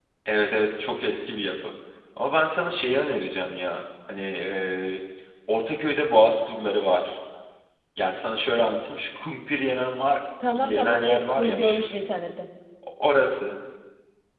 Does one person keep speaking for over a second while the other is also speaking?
Yes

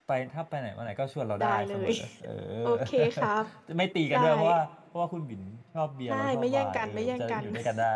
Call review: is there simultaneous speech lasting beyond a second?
Yes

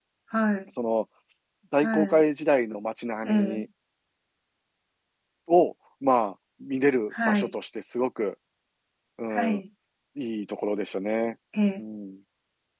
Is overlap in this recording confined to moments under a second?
Yes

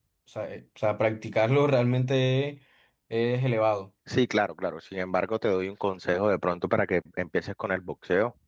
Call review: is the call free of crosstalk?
Yes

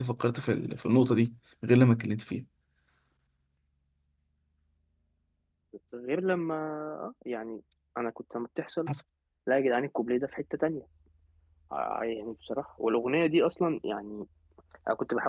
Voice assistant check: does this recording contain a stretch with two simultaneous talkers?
No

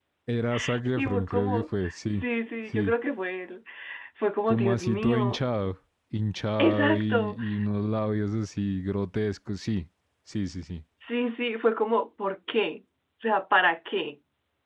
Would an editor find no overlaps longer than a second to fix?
No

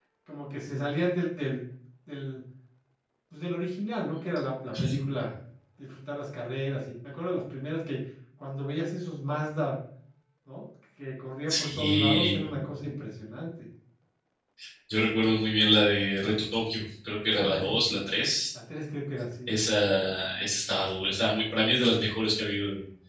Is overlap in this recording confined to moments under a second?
No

